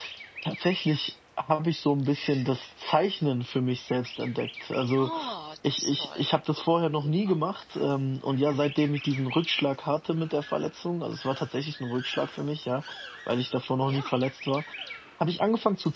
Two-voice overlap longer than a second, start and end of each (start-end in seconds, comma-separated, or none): none